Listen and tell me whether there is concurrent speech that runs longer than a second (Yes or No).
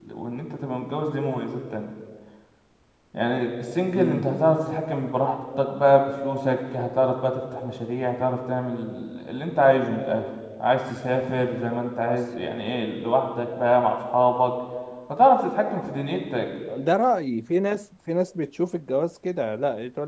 No